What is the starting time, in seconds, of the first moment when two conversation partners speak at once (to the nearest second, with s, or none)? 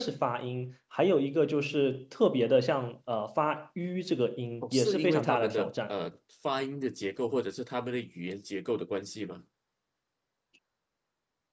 5 s